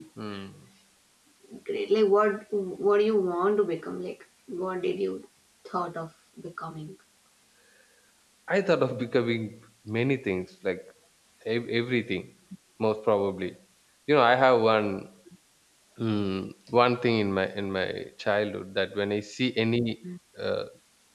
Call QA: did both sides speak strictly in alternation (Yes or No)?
Yes